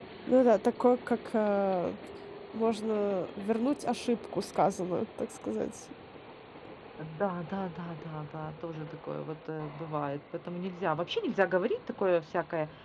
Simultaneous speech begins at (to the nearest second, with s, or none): none